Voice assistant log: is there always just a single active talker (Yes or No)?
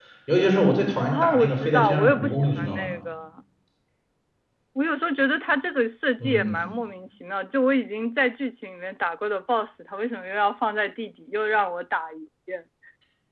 No